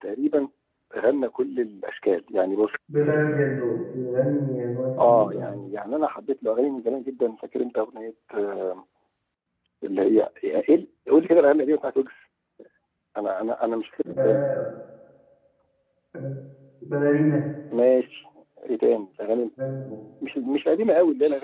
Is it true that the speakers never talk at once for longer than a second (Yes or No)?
Yes